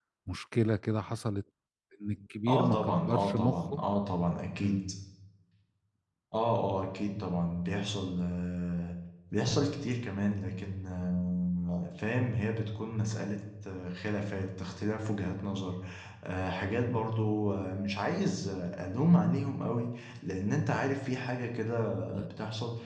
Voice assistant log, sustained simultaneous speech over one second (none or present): present